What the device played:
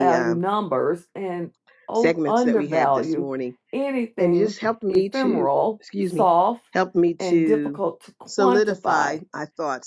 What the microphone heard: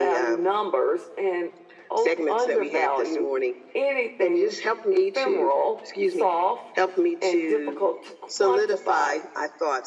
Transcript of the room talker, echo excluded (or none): none